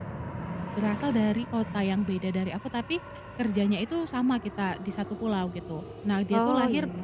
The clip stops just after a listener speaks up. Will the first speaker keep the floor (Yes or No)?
Yes